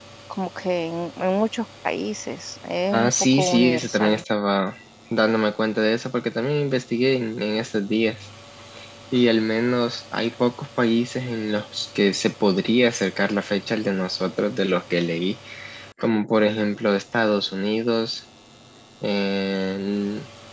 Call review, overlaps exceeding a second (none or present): present